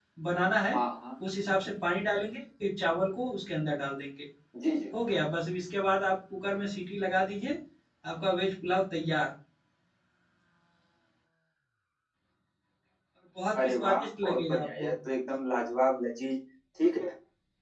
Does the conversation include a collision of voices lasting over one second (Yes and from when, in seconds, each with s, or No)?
Yes, from 13.6 s